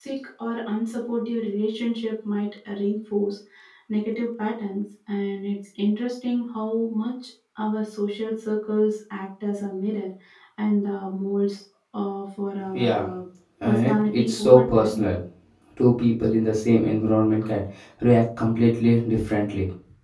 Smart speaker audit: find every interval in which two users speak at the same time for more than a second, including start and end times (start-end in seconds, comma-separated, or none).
13.6-15.0